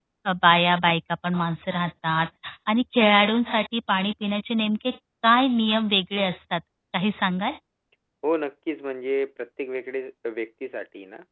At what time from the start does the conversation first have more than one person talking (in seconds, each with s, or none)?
none